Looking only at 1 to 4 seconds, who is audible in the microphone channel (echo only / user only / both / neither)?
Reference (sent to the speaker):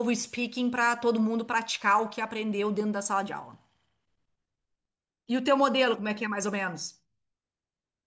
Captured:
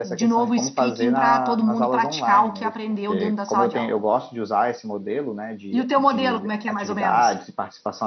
both